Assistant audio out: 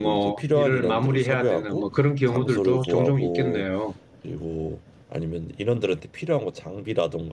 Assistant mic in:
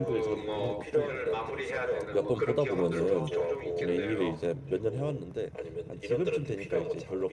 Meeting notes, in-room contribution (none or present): present